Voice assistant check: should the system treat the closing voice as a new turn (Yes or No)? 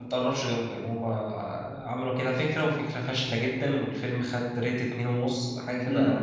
Yes